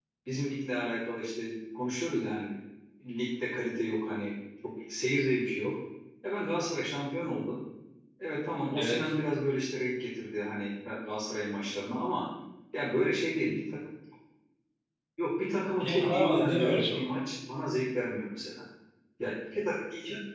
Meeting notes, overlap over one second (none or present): present